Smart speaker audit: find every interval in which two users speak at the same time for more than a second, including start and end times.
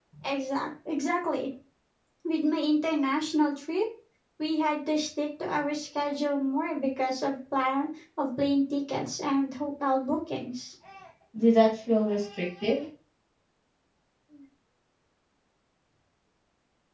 none

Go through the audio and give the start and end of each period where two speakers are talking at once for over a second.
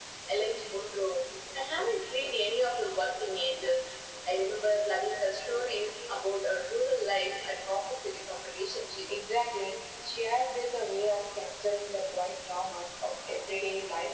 none

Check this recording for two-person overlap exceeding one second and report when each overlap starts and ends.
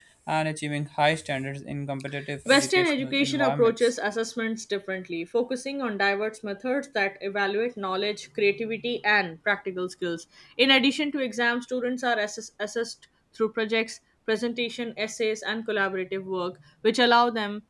2.5-3.9

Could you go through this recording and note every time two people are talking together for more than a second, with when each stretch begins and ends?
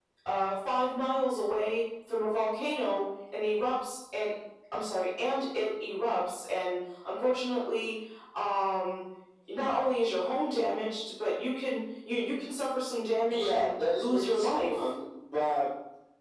13.3-14.7

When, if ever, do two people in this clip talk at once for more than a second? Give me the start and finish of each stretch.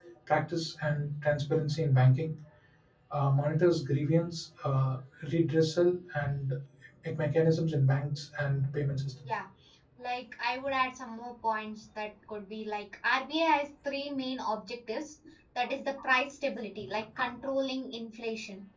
none

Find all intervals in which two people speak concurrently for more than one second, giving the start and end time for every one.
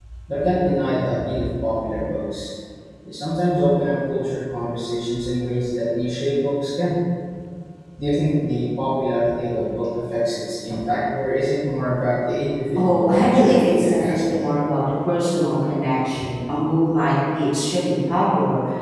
12.8-14.5

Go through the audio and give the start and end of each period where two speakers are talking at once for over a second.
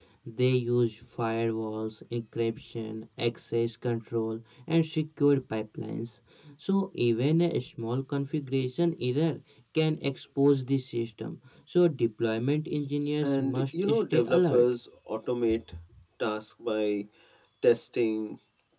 13.2-14.6

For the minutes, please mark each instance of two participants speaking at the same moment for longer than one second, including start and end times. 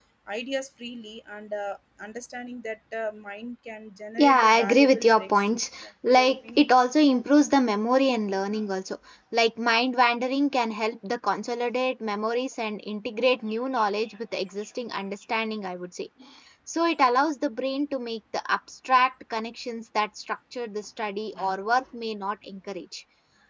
4.2-6.6

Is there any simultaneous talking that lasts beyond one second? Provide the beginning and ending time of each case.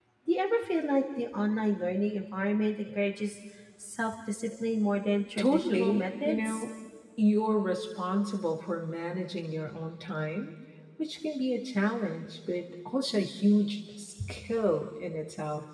5.4-6.6

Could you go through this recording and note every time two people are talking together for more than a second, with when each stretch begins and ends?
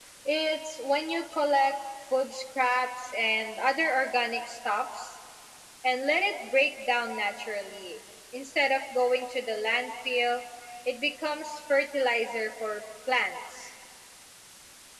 none

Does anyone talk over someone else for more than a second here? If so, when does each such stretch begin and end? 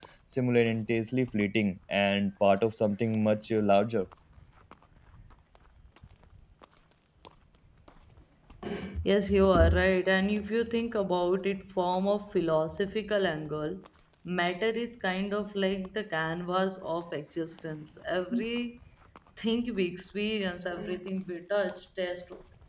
none

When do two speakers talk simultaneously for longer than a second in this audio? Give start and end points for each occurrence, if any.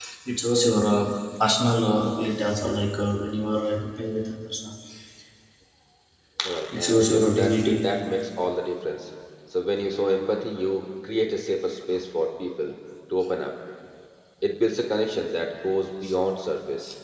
6.7-7.9

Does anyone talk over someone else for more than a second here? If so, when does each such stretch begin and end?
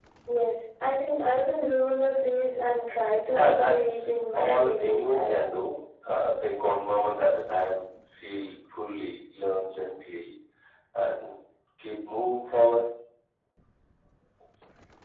3.3-5.3

